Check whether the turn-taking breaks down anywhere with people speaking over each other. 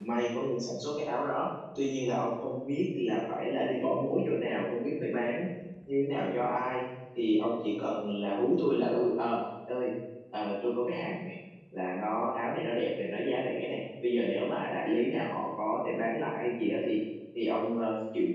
No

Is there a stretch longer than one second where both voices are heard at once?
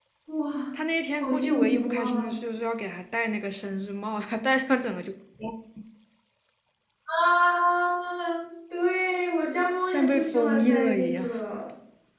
Yes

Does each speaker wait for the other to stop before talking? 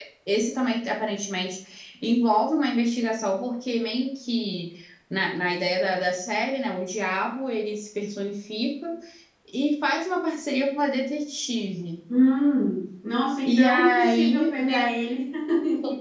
No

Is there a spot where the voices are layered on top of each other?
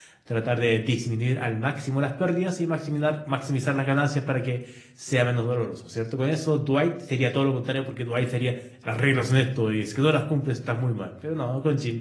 No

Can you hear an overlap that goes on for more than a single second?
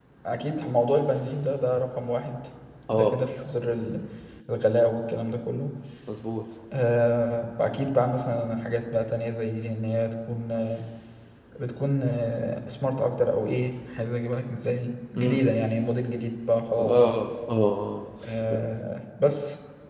No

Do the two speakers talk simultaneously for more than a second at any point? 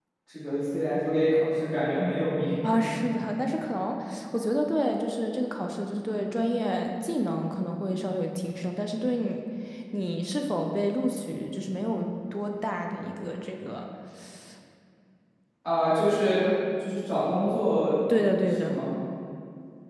No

